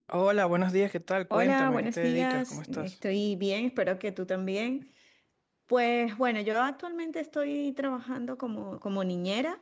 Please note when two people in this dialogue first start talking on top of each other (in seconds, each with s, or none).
1.3 s